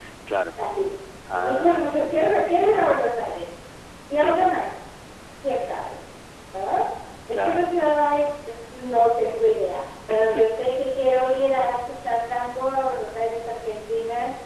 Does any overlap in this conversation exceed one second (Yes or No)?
Yes